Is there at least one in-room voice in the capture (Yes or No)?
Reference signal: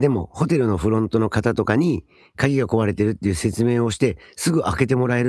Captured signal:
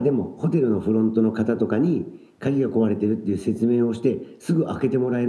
No